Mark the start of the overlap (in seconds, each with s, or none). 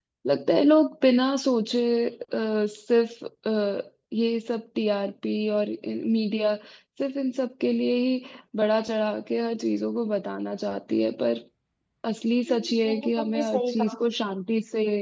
12.5 s